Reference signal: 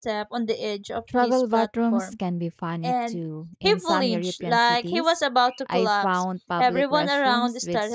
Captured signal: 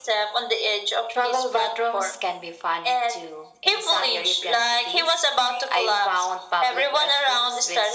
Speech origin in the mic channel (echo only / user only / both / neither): echo only